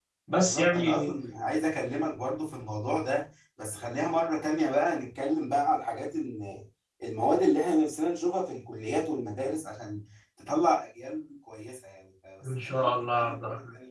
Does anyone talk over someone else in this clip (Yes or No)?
Yes